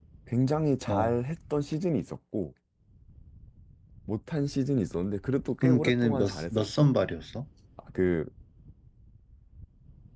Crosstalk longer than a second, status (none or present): present